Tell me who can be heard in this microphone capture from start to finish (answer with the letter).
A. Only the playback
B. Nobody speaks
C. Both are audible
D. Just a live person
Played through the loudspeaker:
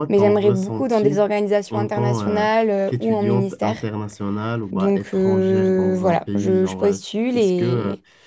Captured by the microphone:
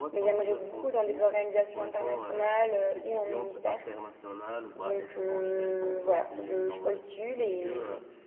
A